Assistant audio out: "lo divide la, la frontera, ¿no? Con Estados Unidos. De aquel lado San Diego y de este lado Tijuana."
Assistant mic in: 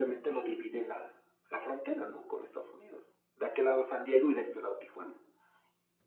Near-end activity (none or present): none